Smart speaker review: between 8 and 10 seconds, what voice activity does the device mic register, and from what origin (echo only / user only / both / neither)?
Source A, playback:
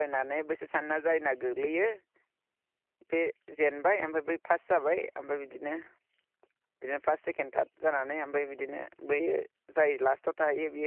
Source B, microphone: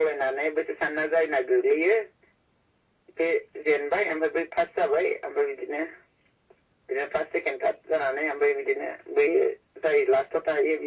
echo only